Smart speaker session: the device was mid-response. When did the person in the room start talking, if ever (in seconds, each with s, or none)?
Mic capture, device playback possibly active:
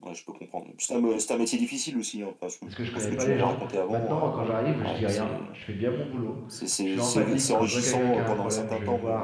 2.6 s